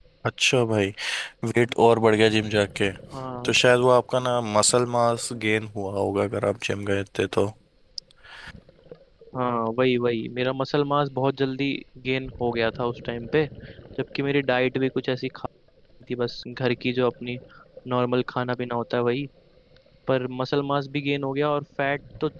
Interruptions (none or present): none